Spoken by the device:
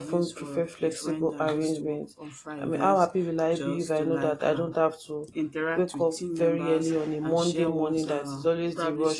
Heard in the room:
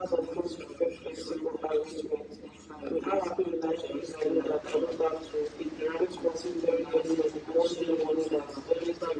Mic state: echo only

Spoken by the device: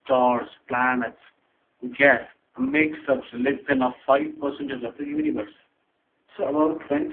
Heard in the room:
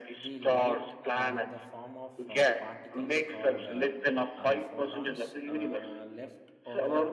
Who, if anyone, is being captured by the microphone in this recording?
both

